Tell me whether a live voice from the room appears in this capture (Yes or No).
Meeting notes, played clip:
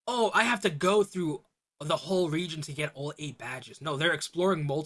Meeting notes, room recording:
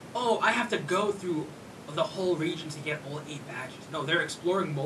No